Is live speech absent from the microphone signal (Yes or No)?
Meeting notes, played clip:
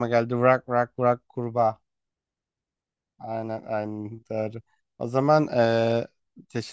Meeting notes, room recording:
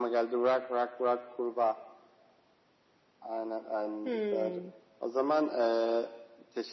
No